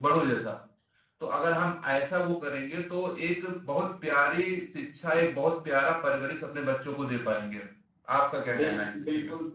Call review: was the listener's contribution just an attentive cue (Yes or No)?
No